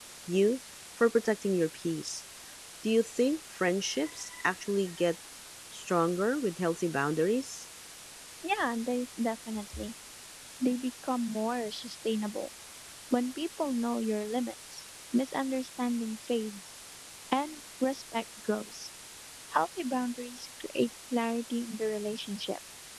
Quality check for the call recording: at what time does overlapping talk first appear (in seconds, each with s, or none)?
none